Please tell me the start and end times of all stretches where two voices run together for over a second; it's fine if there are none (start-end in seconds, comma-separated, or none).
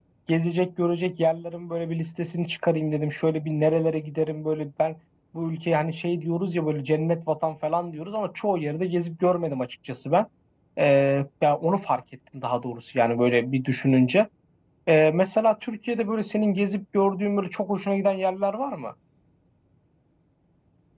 none